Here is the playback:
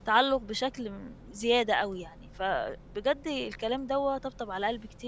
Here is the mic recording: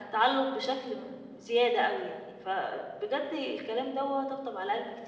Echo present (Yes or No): Yes